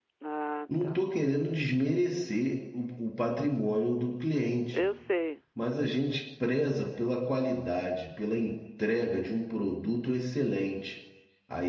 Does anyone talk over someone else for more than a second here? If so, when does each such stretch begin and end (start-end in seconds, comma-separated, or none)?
none